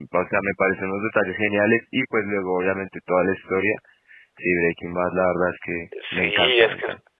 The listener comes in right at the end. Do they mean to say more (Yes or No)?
Yes